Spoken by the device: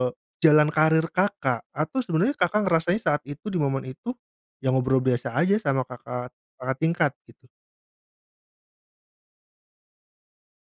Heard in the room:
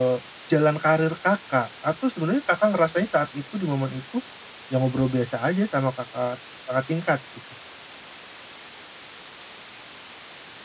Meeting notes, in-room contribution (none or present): none